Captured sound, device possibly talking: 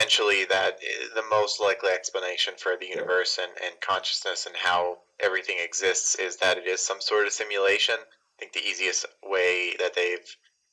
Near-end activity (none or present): present